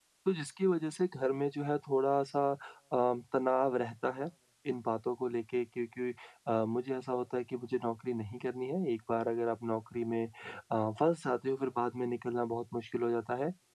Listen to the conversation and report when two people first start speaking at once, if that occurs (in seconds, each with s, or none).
none